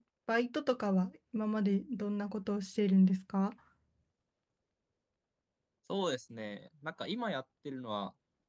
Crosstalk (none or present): none